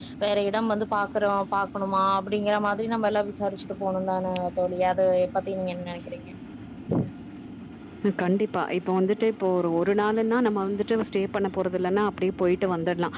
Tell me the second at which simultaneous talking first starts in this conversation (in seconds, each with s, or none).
none